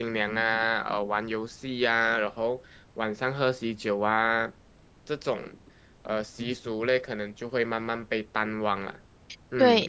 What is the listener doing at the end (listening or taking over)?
taking over